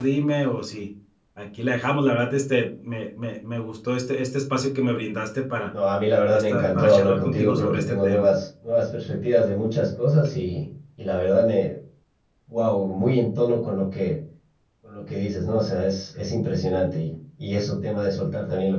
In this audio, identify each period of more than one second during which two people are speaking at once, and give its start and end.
6.3-8.3

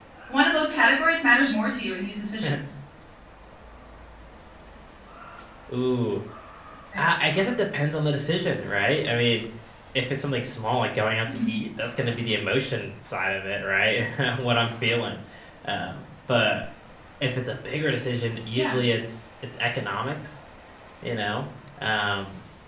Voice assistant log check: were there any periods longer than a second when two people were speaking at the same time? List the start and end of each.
none

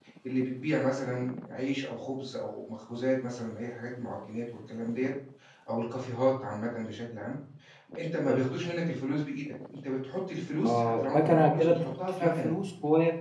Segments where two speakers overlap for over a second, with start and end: 10.7-12.5

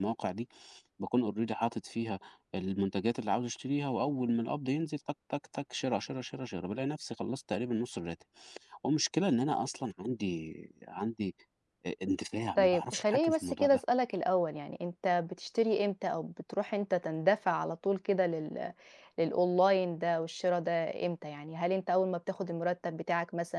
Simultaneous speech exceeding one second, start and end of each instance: 12.6-13.8

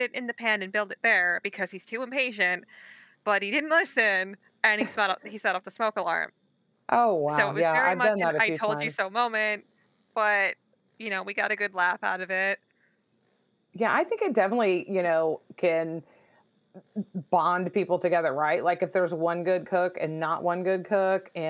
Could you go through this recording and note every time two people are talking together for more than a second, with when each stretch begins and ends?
7.4-8.9

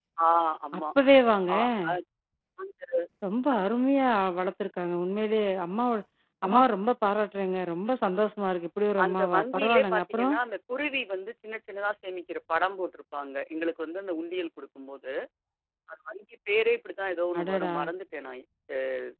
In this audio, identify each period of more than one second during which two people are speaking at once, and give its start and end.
9.0-10.3

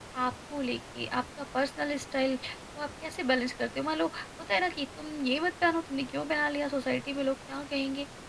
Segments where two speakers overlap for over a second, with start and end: none

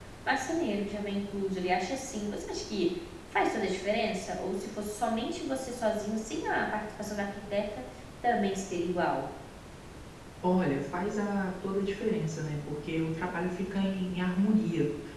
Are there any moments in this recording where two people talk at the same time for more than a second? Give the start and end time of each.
none

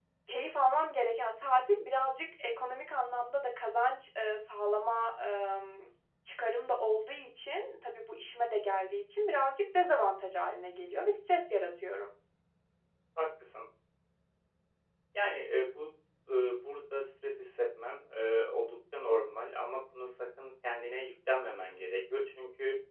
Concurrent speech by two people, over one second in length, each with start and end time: none

